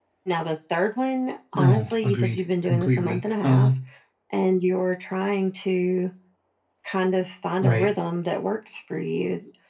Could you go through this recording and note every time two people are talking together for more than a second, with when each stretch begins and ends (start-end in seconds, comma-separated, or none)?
1.5-3.7